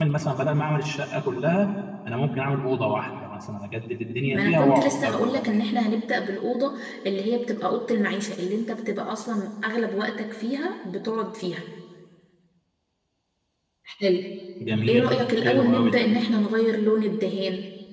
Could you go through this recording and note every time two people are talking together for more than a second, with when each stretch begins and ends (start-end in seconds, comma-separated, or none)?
4.3-5.6, 14.9-16.1